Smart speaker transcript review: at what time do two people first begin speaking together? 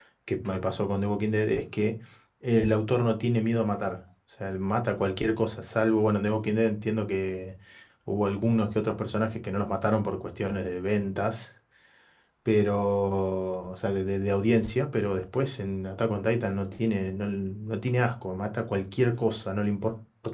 none

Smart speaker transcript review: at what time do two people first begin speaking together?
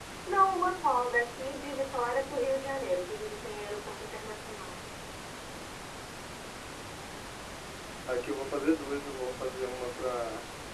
none

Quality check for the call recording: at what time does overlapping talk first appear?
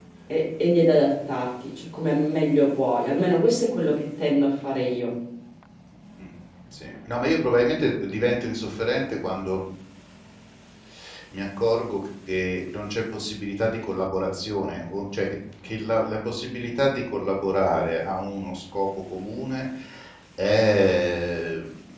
none

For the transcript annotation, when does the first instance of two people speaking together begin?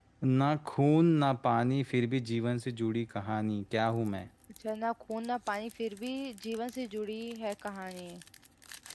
none

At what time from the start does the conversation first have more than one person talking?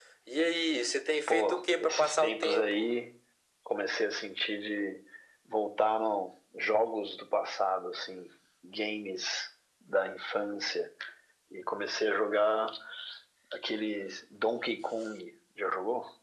1.3 s

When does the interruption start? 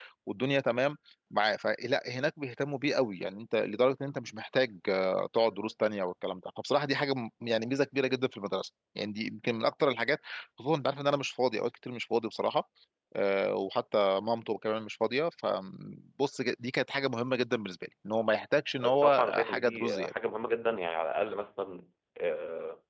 18.8 s

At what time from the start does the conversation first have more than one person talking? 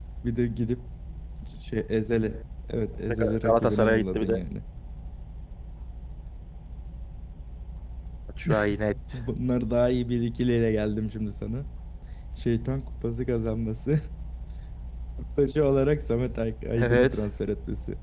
3.1 s

